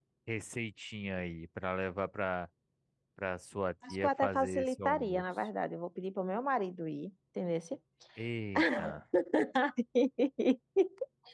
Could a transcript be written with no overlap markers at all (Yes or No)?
No